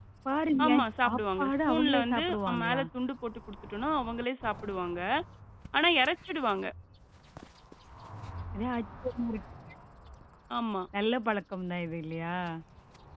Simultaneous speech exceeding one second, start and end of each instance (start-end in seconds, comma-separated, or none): 0.6-2.8